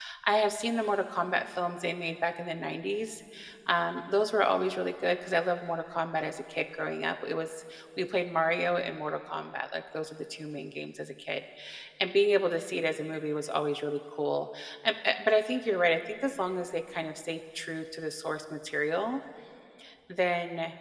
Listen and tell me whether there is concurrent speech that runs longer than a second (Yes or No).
No